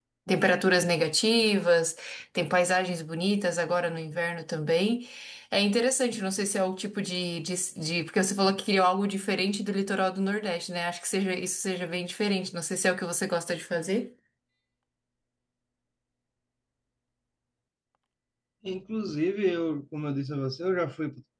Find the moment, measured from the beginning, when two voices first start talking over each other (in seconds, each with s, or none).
none